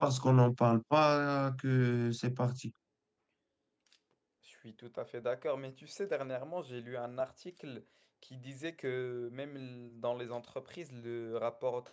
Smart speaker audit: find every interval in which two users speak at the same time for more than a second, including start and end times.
none

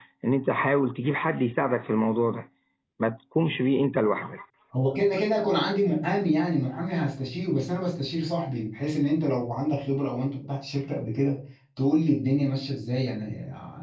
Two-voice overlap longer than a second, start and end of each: none

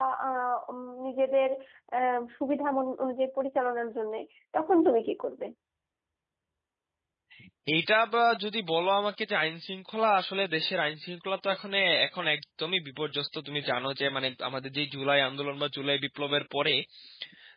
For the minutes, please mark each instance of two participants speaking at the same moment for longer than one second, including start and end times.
none

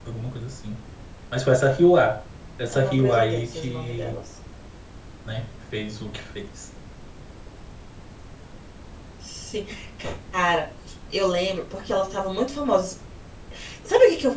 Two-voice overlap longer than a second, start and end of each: 2.7-4.2

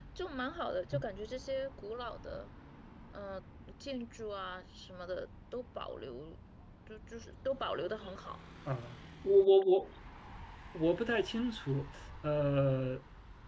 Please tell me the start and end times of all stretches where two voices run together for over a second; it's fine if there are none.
none

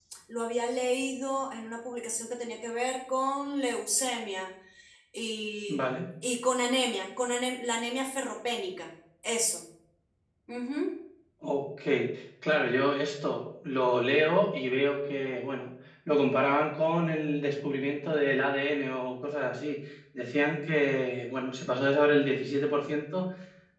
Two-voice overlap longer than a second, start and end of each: none

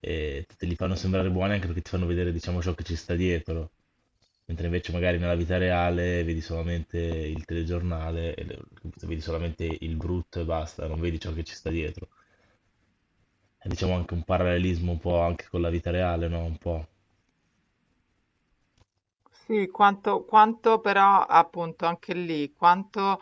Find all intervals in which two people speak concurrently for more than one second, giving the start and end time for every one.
none

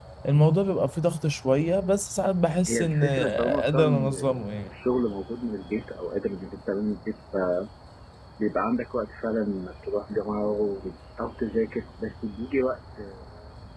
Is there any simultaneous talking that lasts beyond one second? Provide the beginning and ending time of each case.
2.7-4.7

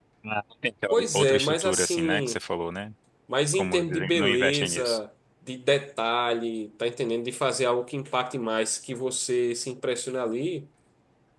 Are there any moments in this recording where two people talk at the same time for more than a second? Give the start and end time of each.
0.9-2.4, 3.5-5.0

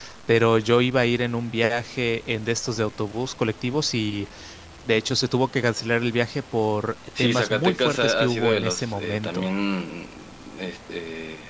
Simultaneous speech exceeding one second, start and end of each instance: 7.2-9.5

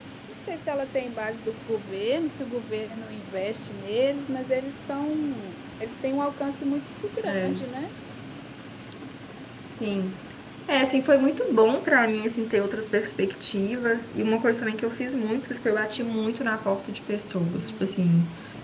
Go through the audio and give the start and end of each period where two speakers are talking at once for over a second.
none

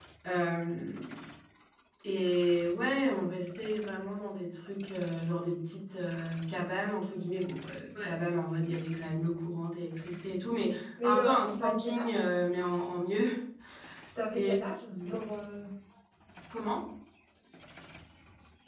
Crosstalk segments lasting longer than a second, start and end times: 11.0-12.2

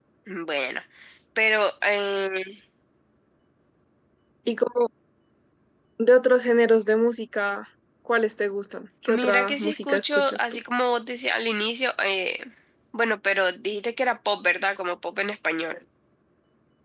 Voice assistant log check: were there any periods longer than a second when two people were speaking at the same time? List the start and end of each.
9.1-10.6

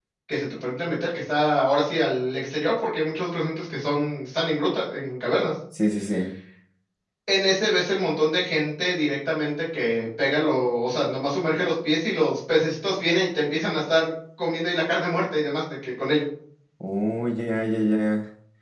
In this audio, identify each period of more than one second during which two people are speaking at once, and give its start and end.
none

